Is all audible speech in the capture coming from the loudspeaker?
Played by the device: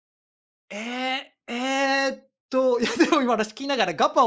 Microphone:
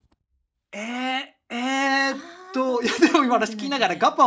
No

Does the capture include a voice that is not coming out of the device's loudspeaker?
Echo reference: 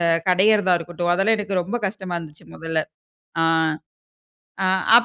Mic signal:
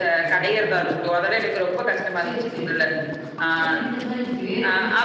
Yes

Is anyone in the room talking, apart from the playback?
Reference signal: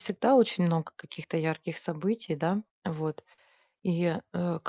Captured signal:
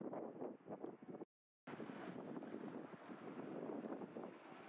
No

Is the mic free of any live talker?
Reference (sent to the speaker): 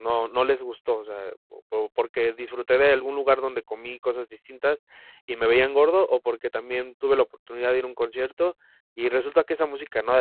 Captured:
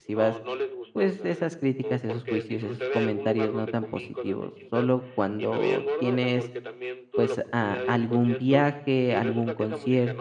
No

